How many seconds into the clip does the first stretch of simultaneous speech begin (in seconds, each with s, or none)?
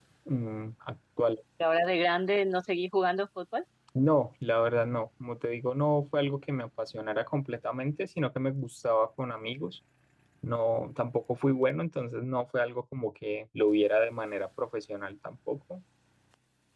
none